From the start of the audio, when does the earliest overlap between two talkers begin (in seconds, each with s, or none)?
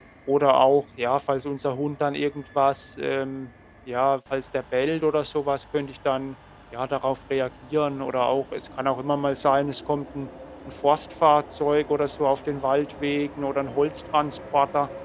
none